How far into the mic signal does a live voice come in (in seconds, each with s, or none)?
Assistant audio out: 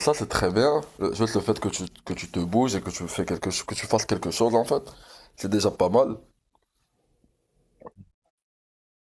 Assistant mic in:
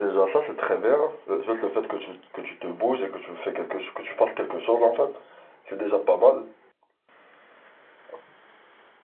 none